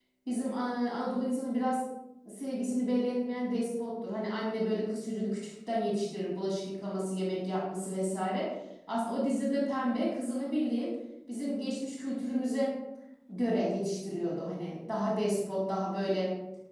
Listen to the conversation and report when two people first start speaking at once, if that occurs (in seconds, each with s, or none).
none